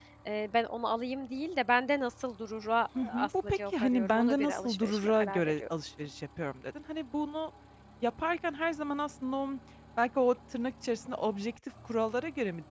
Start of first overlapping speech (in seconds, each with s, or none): 3.0 s